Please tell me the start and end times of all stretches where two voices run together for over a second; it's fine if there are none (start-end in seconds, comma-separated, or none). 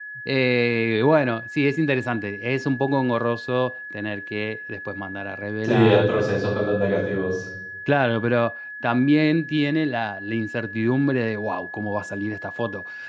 none